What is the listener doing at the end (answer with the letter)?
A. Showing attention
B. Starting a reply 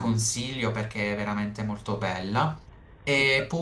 A